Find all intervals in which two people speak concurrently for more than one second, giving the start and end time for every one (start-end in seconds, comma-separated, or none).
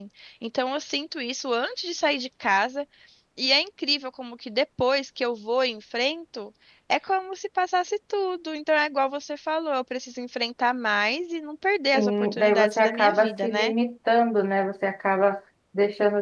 11.9-13.7